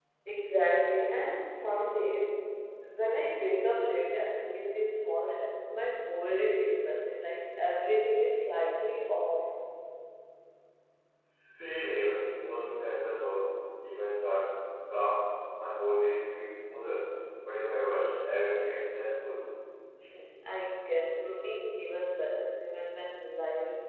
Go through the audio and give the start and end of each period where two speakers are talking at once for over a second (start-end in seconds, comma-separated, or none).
none